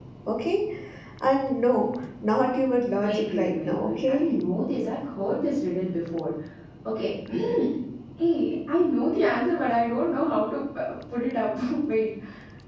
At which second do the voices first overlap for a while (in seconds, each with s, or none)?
3.0 s